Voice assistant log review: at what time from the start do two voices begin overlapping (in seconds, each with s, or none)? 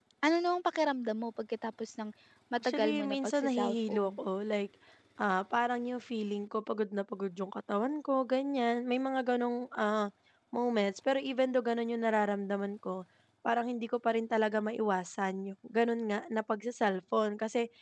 2.6 s